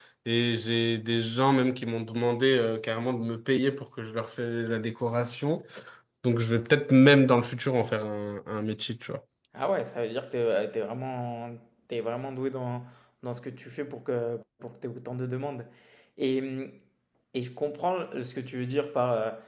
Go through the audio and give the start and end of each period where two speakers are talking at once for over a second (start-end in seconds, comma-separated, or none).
none